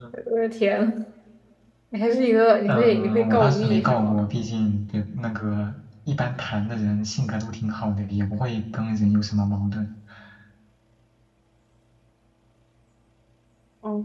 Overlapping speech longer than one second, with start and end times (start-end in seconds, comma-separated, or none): 2.7-4.3